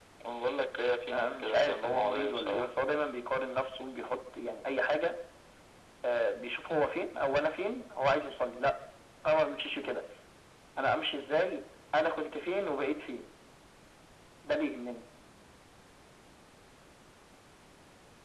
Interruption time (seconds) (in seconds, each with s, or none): 1.1 s